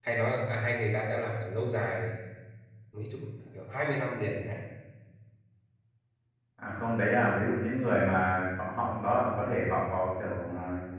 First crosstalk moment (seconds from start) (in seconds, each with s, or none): none